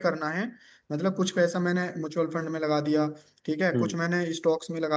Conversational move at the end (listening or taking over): listening